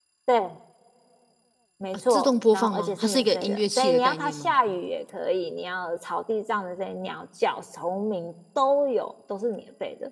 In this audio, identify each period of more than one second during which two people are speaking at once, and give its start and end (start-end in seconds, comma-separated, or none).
2.1-4.5